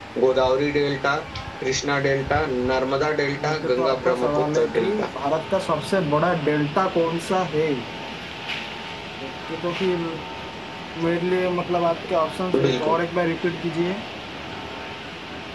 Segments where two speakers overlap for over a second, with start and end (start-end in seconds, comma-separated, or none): 3.5-5.1